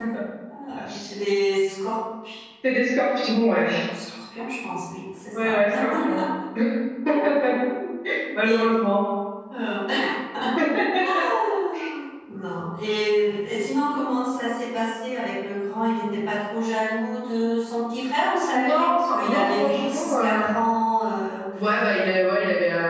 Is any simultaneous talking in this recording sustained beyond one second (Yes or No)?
Yes